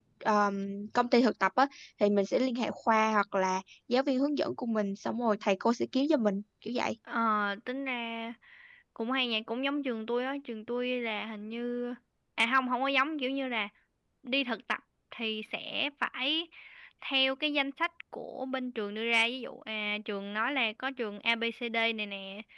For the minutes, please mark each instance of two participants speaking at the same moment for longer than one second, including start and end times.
none

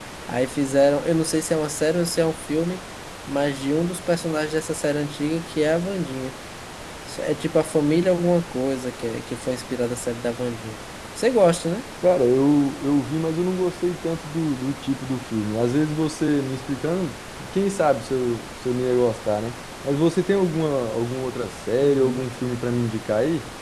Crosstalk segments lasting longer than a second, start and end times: none

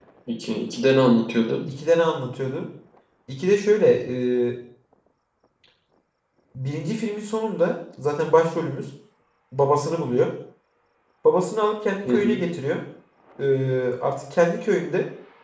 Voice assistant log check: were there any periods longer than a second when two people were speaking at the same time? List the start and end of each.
none

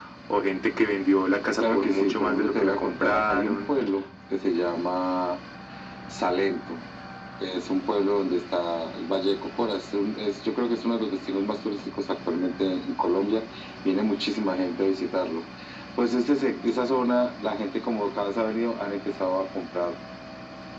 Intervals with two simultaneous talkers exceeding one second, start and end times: 1.6-3.7

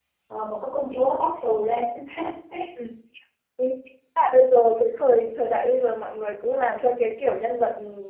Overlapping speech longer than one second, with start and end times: none

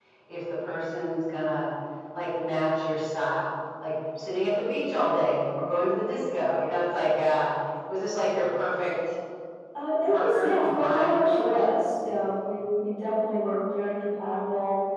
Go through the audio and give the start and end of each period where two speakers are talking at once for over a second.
10.1-11.6

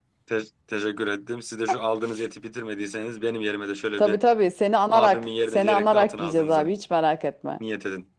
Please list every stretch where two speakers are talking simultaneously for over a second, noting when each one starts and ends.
4.9-6.7

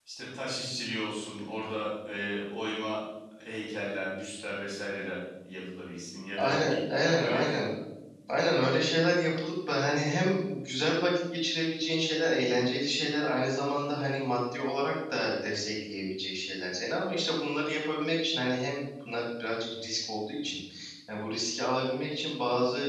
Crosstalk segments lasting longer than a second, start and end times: 6.4-7.7

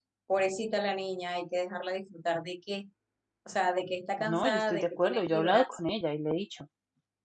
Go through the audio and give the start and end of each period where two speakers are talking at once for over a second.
4.2-5.8

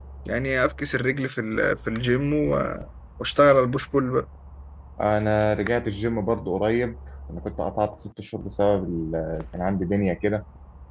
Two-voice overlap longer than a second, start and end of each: none

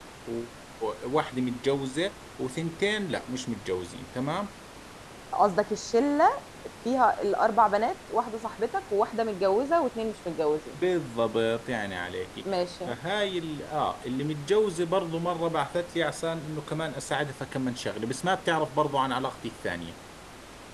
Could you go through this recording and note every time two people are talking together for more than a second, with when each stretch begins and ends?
none

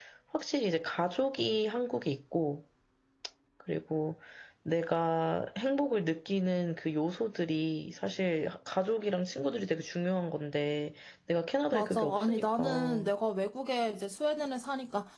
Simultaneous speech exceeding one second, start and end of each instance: 11.7-13.1

